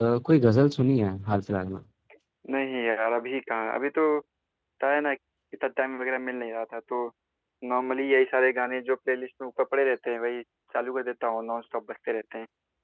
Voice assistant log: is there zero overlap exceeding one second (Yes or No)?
Yes